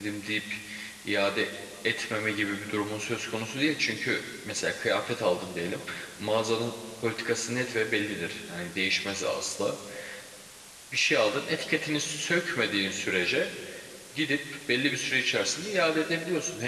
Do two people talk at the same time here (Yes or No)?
No